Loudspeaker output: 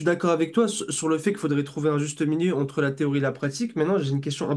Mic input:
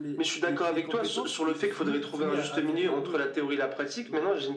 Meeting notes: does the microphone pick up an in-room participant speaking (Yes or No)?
Yes